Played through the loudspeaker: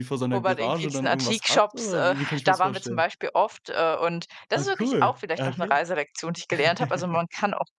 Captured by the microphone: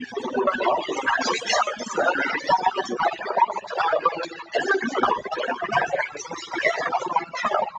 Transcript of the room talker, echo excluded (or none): none